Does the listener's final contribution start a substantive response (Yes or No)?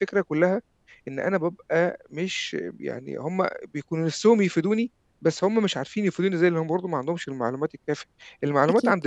No